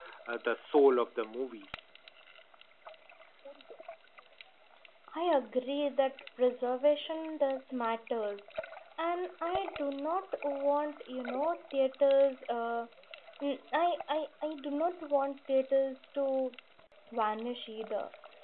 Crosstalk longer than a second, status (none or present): none